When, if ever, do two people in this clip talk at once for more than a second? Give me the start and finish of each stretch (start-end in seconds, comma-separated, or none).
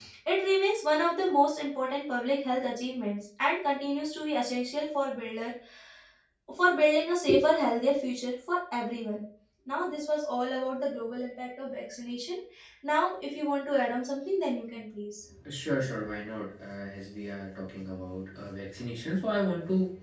none